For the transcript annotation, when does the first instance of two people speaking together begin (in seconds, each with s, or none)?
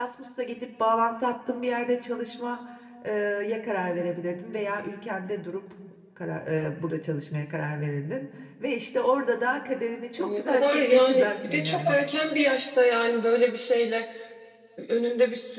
10.2 s